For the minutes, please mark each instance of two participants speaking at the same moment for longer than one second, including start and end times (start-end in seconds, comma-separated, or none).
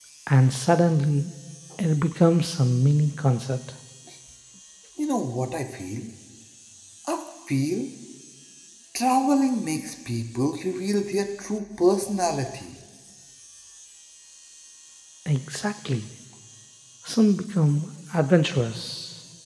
none